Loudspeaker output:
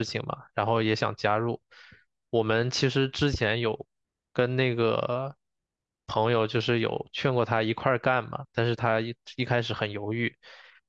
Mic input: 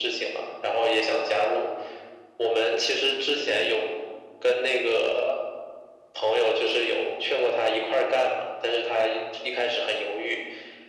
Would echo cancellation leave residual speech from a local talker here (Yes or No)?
No